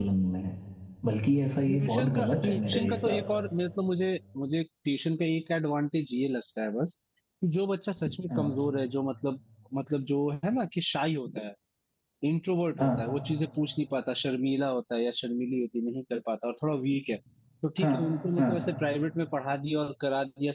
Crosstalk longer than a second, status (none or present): present